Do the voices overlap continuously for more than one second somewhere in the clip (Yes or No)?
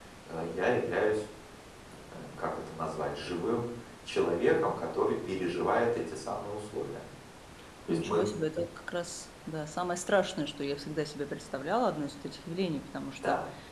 No